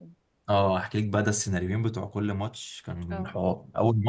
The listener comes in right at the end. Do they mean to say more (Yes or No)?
No